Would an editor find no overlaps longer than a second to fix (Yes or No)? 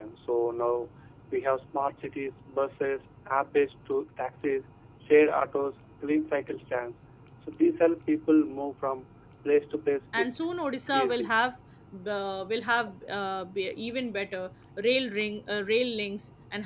Yes